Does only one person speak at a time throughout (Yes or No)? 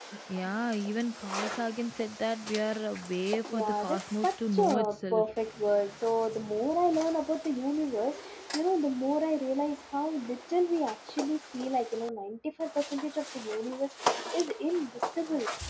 No